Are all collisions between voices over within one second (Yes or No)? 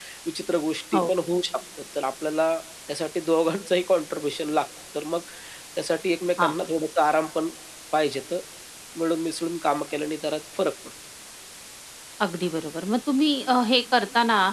Yes